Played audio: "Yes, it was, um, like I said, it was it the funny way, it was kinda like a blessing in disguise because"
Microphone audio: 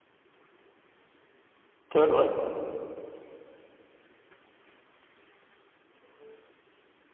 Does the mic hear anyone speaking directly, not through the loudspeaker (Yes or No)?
Yes